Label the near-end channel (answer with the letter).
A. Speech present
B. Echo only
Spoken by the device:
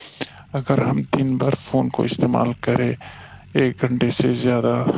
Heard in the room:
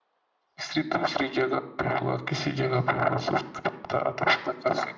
A